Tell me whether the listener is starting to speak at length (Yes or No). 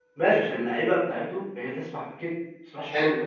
Yes